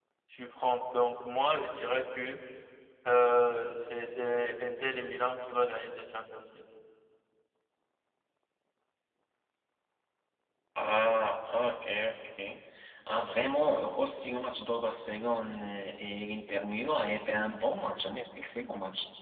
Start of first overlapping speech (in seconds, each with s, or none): none